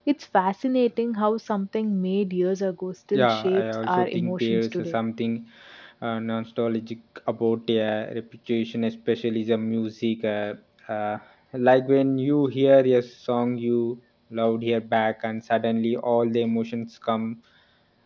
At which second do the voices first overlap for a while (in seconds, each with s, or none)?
3.1 s